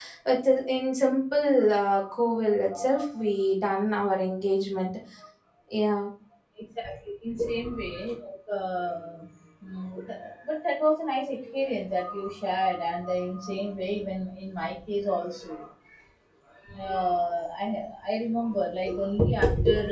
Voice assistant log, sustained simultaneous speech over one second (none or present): none